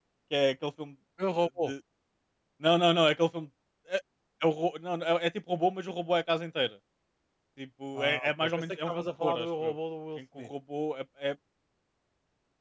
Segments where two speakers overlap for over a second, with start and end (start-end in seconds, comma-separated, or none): 8.0-9.7